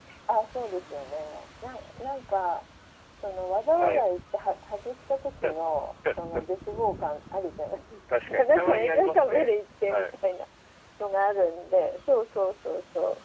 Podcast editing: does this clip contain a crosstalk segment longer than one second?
Yes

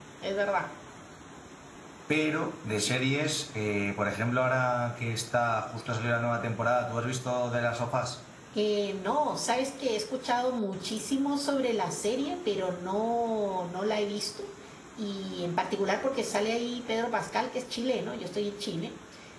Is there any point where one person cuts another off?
No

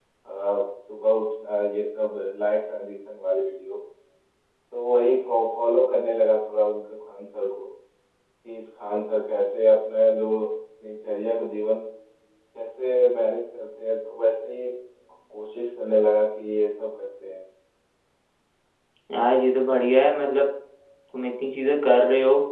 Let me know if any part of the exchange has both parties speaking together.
No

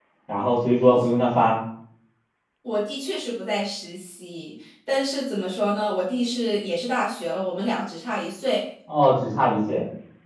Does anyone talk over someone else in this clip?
No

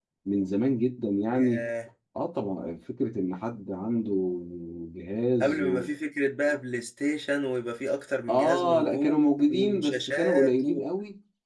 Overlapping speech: Yes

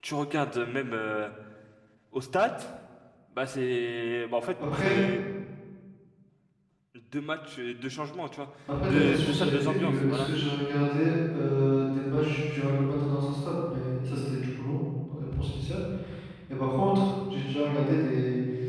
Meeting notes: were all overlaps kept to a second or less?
No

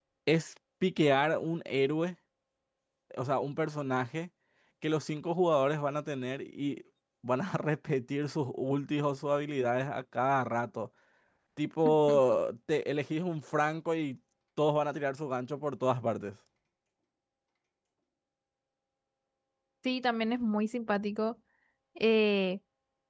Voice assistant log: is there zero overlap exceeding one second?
Yes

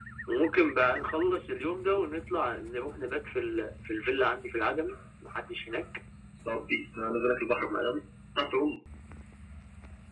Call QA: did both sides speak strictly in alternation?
Yes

